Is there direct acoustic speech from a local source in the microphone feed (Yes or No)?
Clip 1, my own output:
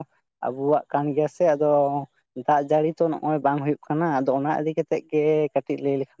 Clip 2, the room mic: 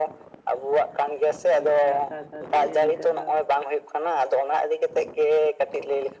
Yes